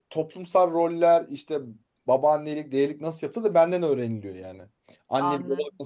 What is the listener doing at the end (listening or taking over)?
taking over